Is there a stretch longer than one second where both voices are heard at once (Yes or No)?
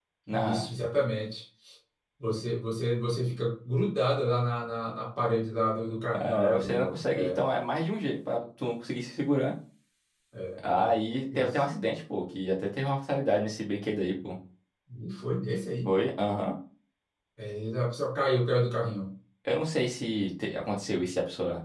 Yes